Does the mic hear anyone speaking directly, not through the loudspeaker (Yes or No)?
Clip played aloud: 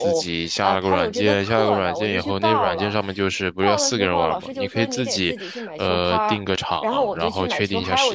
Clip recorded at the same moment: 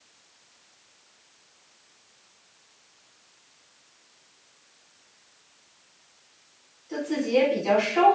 Yes